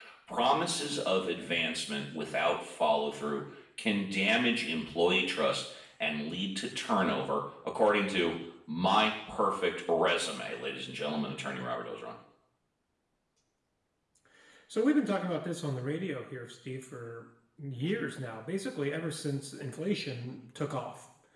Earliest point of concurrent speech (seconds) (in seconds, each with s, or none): none